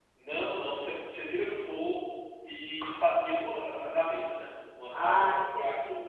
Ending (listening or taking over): taking over